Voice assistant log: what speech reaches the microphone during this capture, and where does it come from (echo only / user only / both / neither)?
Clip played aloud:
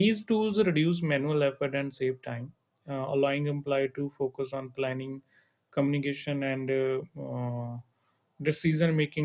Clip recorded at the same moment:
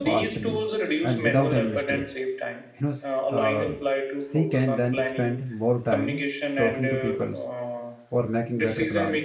both